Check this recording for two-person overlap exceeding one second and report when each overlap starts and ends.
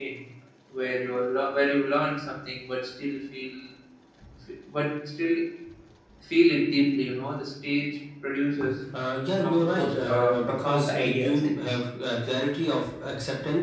9.3-11.8

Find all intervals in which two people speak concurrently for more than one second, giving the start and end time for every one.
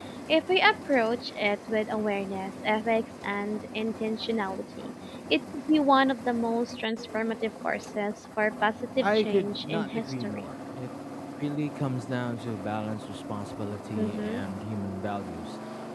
9.0-10.4

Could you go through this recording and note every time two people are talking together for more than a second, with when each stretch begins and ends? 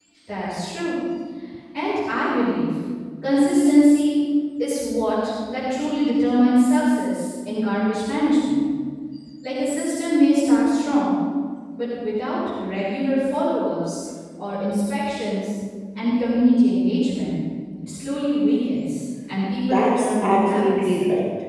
19.7-20.9

